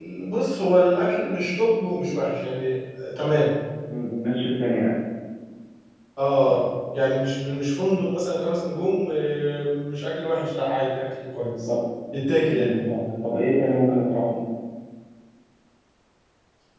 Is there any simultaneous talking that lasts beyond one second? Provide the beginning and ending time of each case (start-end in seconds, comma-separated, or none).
none